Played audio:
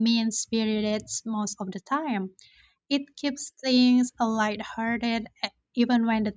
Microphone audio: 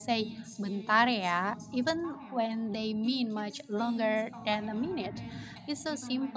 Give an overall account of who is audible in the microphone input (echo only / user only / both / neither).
both